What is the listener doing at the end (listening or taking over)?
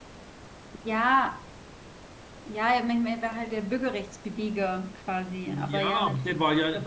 taking over